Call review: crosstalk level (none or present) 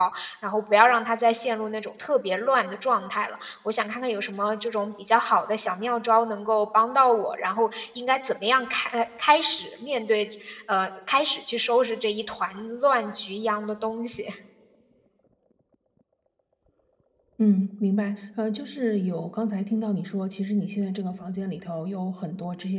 none